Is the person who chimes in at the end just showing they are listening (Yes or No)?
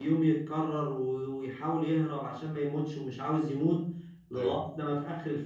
Yes